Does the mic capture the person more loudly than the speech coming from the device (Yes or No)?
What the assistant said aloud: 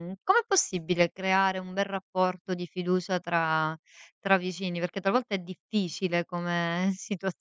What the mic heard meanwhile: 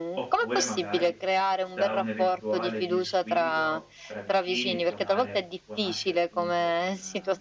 No